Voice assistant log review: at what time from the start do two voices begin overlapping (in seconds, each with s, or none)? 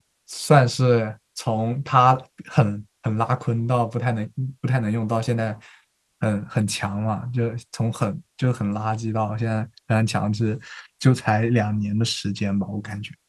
none